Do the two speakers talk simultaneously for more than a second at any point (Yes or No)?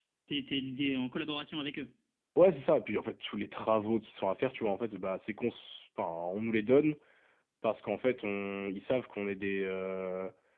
No